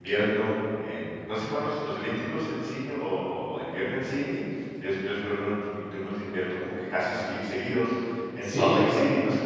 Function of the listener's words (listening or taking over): listening